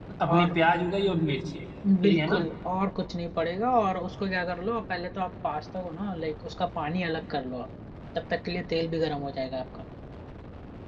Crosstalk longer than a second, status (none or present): none